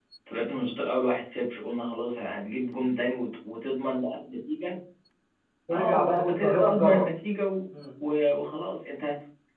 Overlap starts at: 5.7 s

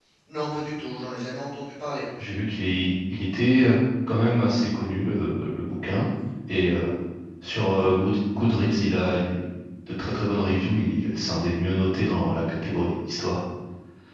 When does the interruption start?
none

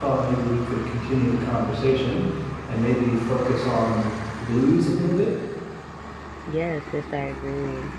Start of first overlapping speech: none

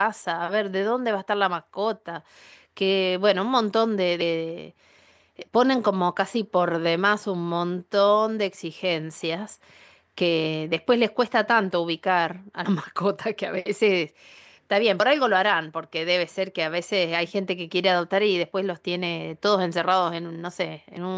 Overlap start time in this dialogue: none

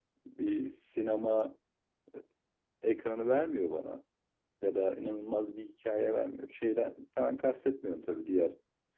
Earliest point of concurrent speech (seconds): none

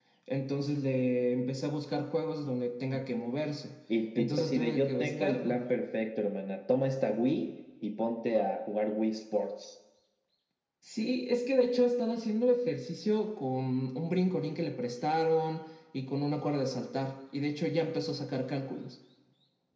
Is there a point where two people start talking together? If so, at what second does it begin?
4.2 s

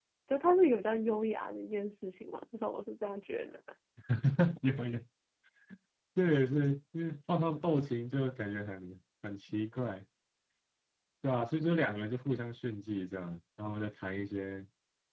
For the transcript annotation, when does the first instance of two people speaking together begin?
none

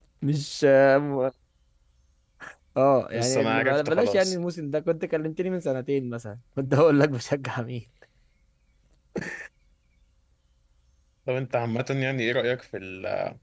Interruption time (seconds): 3.1 s

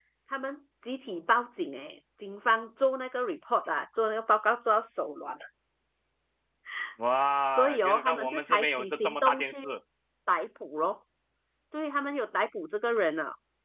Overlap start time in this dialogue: 7.5 s

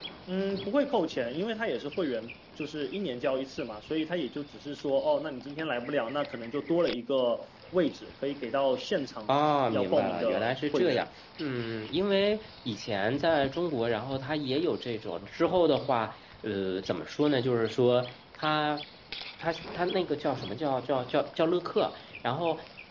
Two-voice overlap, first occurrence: 9.7 s

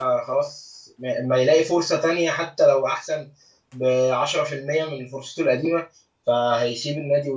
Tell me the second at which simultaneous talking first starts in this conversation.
none

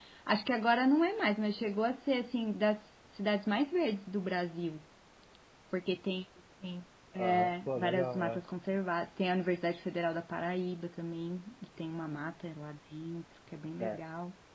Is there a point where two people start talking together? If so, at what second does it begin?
7.2 s

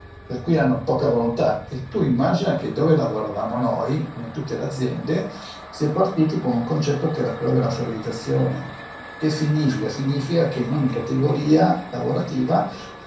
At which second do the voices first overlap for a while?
none

